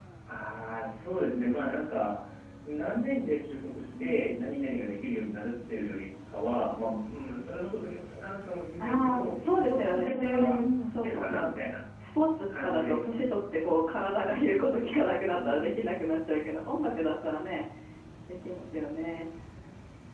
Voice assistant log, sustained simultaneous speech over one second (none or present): present